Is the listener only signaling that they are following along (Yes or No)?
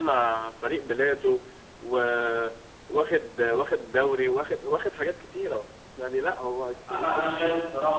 No